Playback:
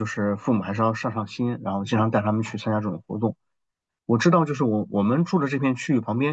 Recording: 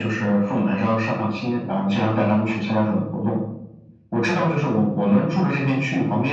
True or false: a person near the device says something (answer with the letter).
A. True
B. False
B